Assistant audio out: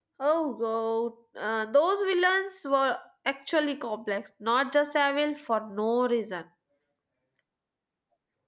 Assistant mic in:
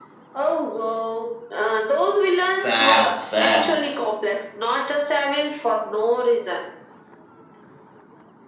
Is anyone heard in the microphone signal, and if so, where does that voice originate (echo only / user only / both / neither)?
both